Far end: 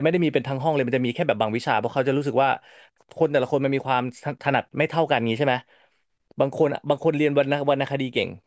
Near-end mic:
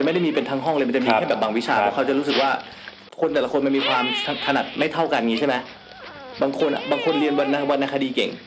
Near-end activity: present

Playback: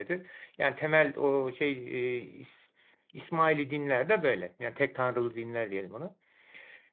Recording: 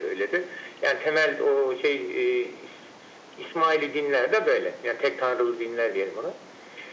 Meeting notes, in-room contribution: none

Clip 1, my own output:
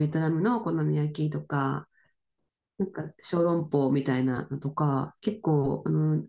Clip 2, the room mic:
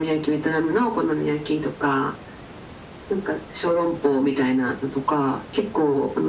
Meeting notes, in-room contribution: none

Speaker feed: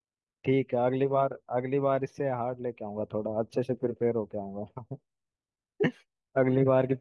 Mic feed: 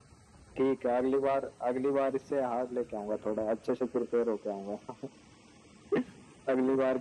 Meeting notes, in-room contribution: none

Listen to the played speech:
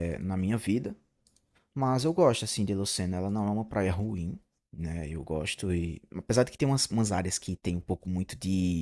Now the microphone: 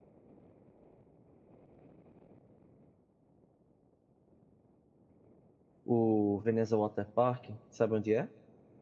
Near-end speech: present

